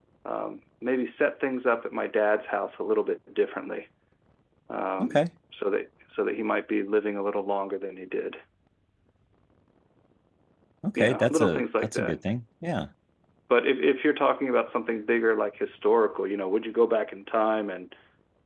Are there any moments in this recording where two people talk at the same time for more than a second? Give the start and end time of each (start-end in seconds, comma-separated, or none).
11.0-12.2